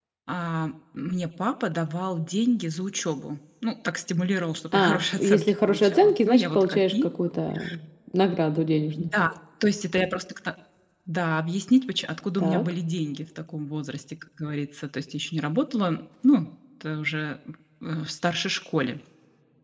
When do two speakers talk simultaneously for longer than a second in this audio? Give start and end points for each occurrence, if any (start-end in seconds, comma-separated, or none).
4.7-7.0